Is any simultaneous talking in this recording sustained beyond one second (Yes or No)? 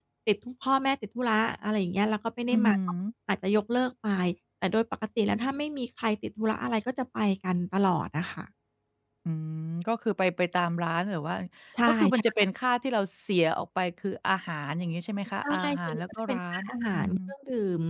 Yes